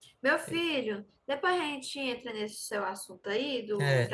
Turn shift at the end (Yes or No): Yes